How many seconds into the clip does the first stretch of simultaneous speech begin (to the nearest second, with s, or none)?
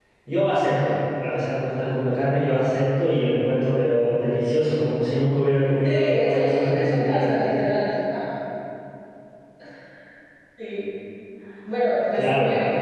6 s